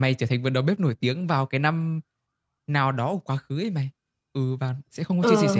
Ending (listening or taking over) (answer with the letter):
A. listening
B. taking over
A